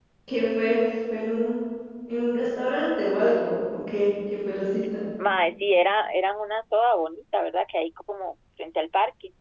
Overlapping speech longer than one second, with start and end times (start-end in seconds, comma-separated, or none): none